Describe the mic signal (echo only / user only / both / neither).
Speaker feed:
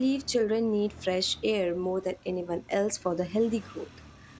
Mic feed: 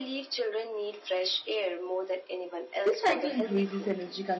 both